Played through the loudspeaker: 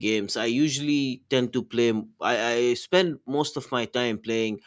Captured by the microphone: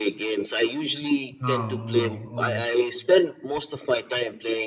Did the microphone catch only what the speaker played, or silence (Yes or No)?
No